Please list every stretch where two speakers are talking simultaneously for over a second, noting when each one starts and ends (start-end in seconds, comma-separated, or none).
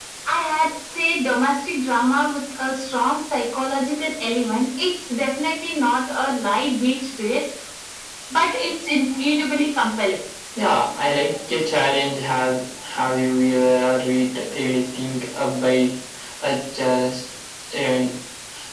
none